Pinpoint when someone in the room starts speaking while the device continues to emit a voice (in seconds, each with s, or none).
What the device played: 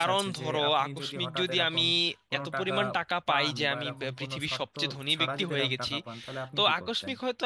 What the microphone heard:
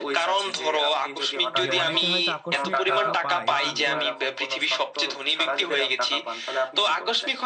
1.6 s